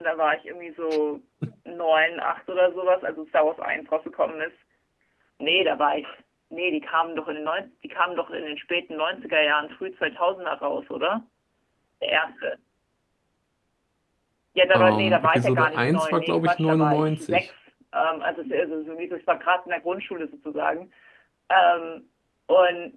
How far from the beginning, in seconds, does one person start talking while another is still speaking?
14.7 s

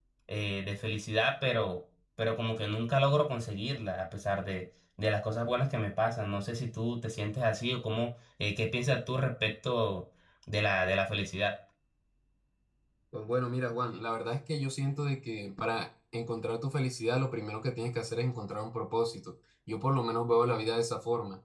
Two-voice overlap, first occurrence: none

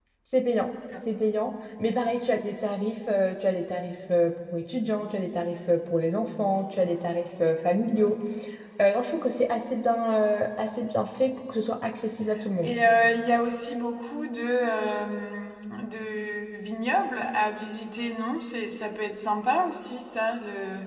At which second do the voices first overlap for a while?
none

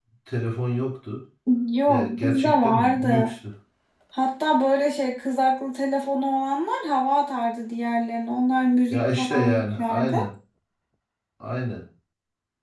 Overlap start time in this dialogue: 1.9 s

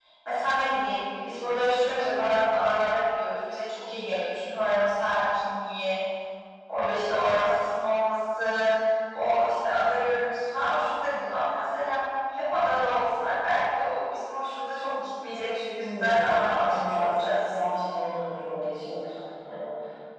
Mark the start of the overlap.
15.8 s

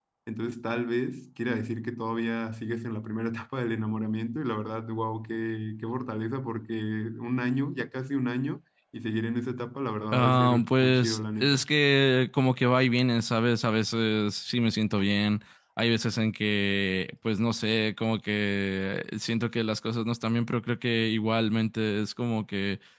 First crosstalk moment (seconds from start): 10.1 s

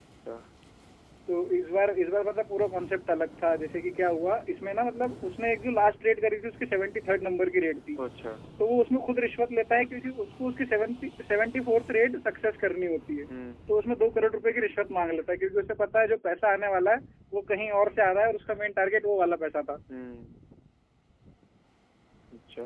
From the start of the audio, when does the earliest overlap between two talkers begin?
none

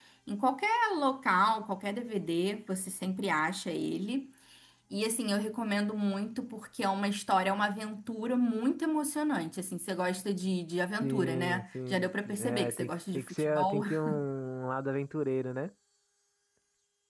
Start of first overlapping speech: 11.0 s

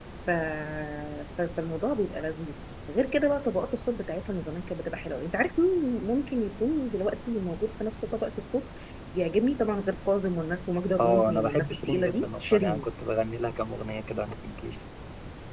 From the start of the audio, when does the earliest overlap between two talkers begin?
11.0 s

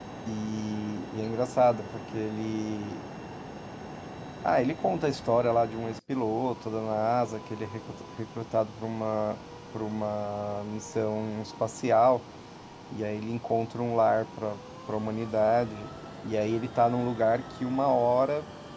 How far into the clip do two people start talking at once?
none

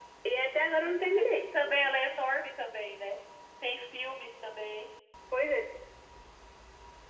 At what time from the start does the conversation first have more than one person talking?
none

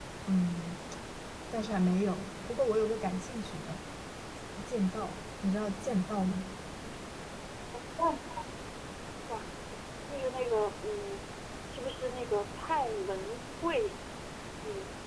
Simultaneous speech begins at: none

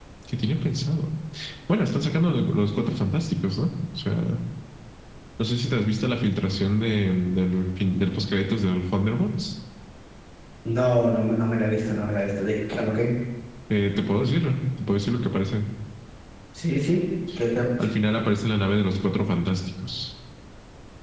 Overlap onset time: none

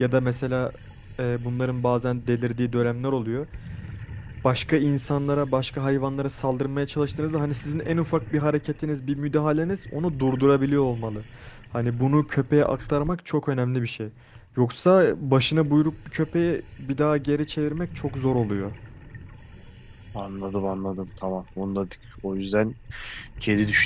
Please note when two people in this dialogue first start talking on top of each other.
none

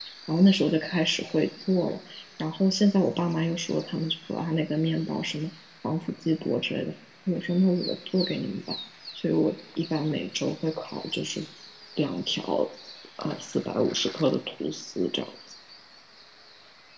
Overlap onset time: none

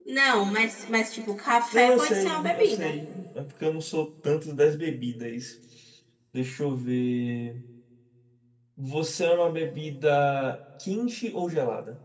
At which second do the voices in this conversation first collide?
1.7 s

